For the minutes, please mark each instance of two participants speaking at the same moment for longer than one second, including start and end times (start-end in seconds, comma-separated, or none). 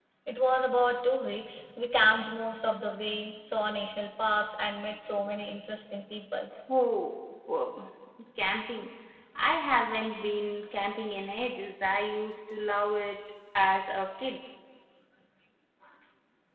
none